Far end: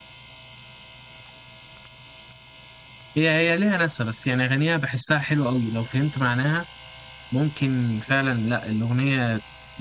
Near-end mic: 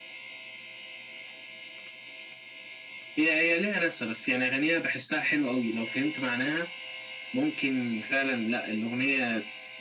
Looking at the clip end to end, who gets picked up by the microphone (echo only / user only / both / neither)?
echo only